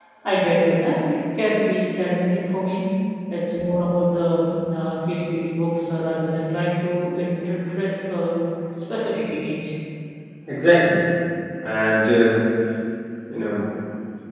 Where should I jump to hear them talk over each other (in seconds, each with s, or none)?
none